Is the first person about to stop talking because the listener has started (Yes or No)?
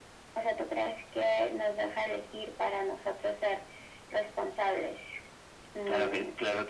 Yes